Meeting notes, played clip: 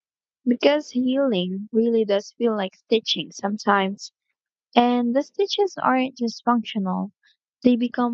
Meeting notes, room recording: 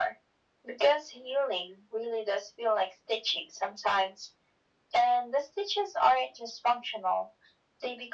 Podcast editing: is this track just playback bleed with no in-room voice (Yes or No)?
Yes